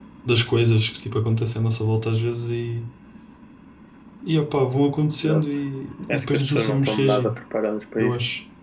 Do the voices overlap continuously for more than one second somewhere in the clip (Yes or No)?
Yes